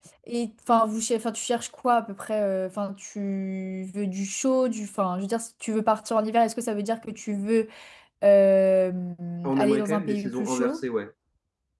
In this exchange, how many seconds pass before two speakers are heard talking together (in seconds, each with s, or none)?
9.6 s